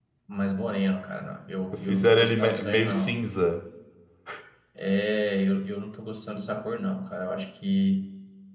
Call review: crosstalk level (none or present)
present